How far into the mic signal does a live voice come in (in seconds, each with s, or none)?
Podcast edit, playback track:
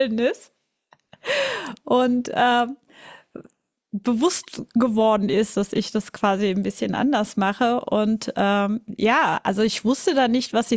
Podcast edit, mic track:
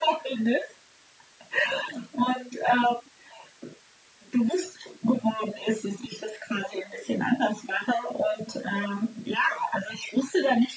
none